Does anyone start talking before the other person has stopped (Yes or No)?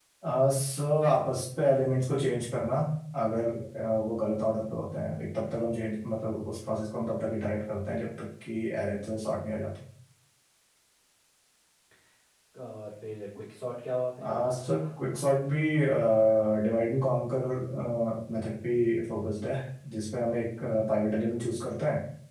No